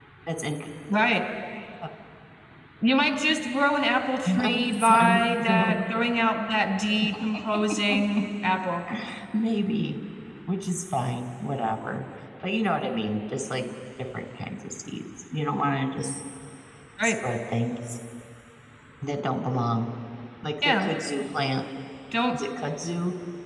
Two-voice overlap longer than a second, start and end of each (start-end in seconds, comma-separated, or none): 4.4-5.8